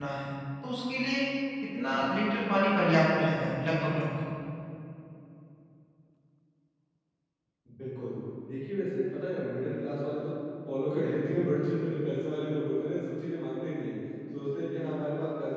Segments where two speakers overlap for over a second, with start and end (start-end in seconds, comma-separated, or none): none